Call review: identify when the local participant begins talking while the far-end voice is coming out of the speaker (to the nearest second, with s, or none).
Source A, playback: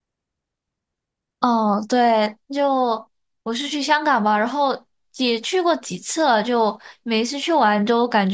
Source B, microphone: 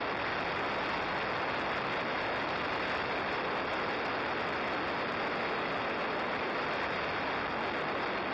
none